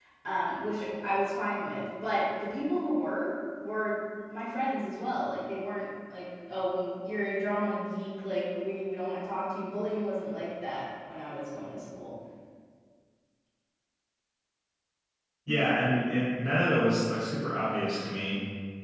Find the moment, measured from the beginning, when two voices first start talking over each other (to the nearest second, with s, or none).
none